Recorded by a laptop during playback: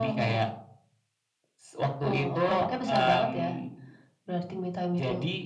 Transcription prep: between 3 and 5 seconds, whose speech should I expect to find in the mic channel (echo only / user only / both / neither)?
echo only